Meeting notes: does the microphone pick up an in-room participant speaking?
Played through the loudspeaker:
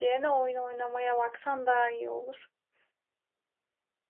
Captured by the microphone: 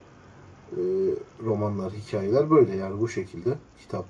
Yes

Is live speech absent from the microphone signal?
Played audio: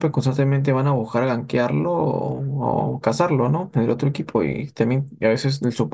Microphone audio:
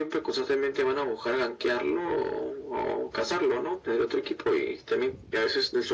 Yes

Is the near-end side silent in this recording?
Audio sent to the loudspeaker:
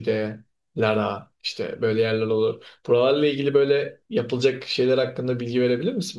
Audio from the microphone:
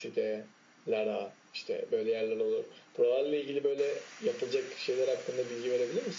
Yes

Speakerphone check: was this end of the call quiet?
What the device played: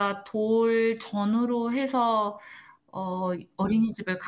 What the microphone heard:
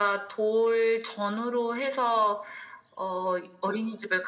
Yes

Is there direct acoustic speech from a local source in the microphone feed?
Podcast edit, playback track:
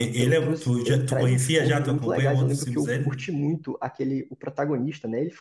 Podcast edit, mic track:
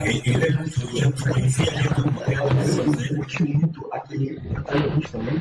Yes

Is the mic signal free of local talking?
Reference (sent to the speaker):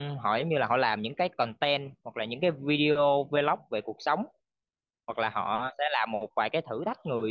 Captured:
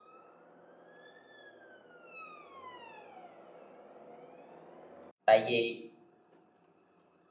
No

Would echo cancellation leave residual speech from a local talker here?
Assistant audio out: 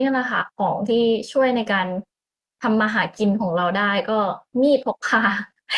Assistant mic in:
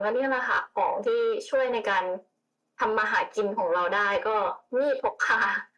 No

